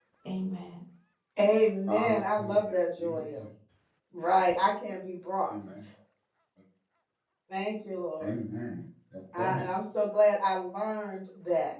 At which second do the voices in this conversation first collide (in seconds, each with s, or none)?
1.9 s